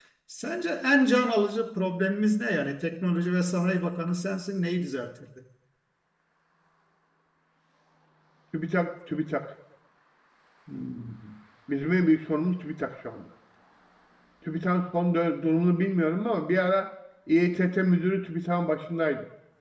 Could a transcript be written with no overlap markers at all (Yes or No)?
Yes